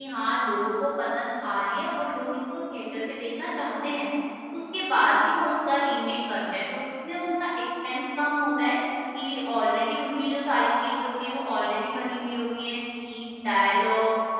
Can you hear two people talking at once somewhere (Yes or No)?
No